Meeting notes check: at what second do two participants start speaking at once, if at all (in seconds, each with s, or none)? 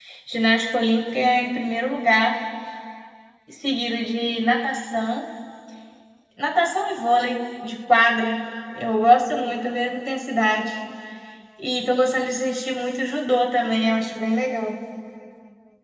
none